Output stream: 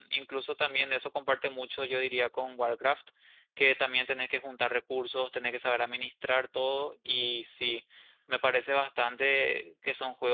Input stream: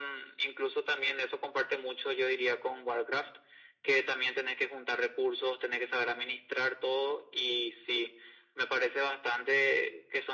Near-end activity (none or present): none